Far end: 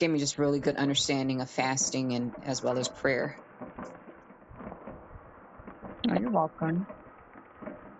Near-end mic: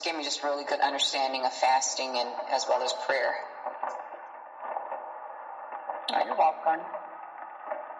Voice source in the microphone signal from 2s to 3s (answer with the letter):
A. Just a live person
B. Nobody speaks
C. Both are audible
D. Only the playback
D